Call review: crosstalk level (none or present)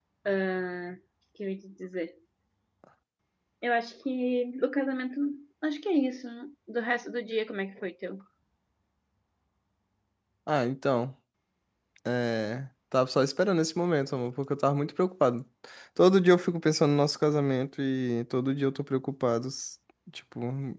none